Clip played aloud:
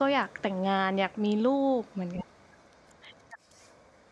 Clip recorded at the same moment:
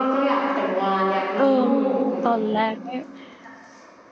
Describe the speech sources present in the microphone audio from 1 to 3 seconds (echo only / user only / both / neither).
both